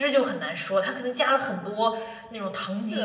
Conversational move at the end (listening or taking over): taking over